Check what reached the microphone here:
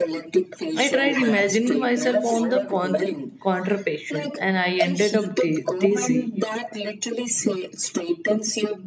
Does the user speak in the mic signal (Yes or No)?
Yes